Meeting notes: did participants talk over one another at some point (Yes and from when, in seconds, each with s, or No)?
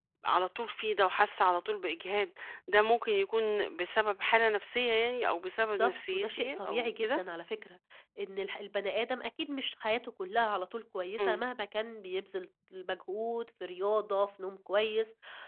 Yes, from 5.6 s